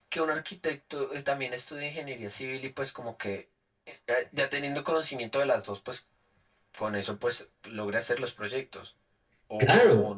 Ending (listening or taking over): taking over